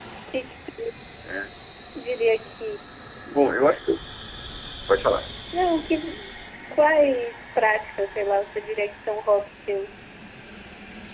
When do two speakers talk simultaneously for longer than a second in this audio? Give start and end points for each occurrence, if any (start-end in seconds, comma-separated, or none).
none